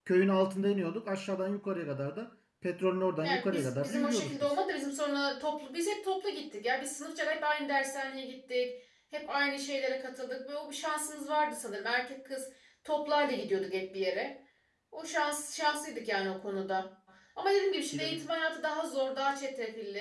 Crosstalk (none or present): present